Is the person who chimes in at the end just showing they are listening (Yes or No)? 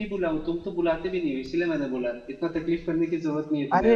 No